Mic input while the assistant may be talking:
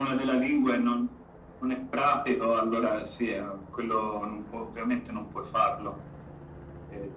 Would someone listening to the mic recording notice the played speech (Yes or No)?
Yes